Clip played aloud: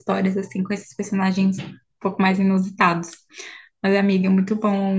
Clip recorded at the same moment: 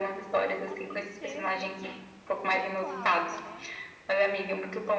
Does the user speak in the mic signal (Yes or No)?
Yes